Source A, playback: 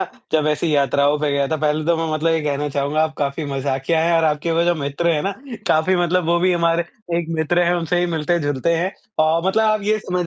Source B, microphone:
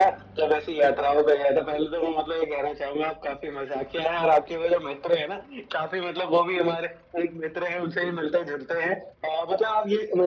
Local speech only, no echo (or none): none